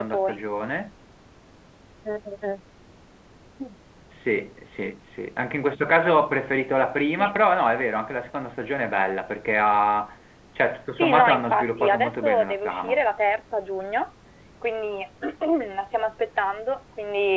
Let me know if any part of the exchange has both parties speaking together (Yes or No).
Yes